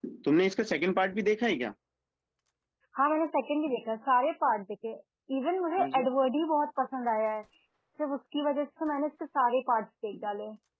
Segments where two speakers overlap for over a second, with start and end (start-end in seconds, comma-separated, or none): none